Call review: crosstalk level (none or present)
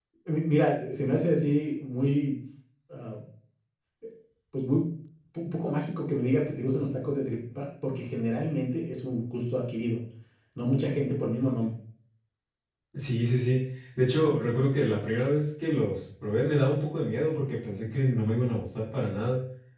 none